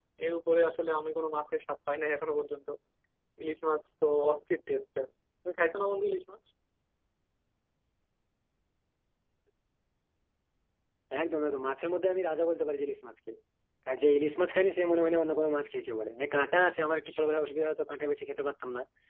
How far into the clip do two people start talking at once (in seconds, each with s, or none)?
none